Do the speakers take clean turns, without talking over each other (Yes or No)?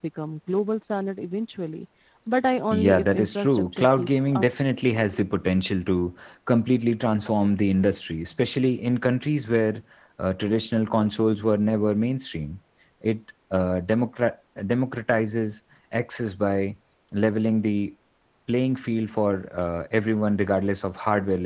No